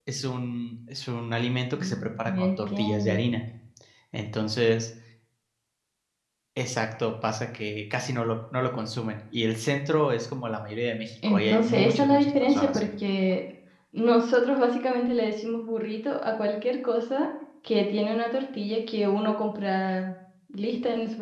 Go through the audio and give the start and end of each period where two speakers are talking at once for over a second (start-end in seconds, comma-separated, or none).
1.7-3.2, 11.3-12.8